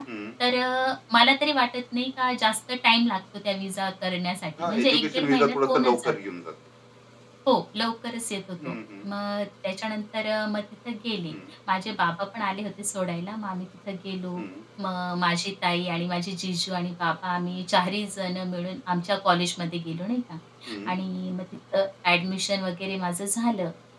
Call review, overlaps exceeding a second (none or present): present